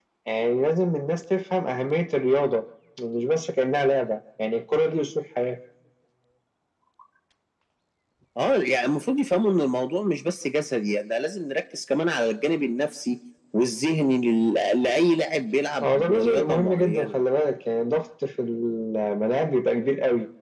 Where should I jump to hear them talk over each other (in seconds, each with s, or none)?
15.8 s